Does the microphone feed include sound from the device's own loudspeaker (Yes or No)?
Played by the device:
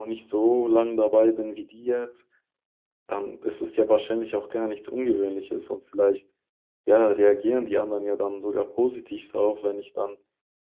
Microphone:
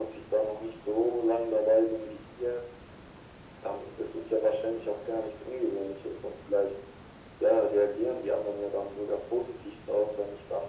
Yes